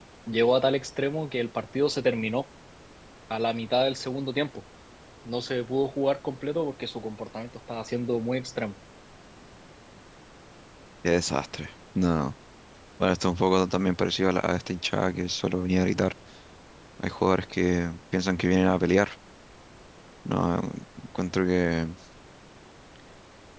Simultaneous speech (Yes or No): No